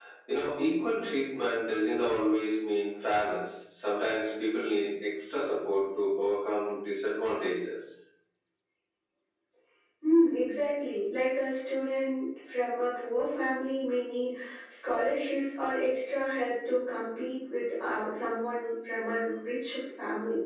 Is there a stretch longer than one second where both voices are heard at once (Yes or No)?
No